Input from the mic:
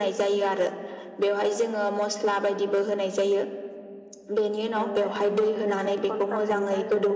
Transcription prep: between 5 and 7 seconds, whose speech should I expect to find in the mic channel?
both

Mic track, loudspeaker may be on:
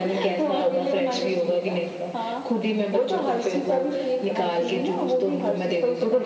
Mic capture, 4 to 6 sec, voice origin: echo only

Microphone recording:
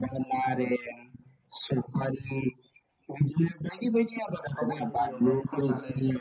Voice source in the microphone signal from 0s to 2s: echo only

